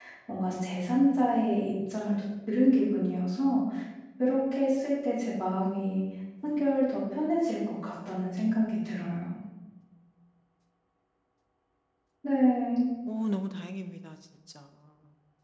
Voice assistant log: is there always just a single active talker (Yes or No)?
Yes